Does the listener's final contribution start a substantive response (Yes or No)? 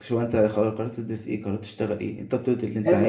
Yes